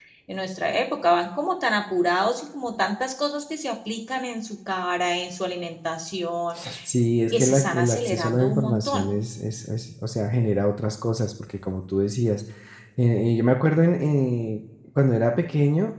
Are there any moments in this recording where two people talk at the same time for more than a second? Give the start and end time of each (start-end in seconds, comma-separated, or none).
7.3-9.1